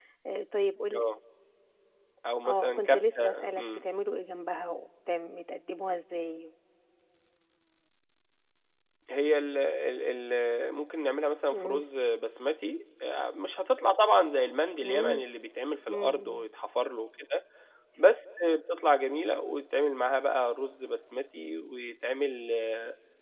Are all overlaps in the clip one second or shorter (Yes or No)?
No